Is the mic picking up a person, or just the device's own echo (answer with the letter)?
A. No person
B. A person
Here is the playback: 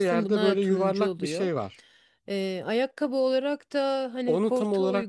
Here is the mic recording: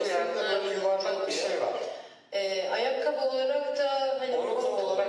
A